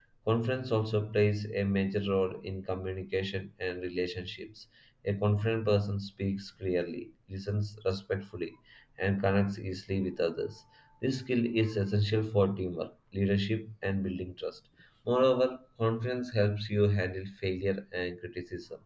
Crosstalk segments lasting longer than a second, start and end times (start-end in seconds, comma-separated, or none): none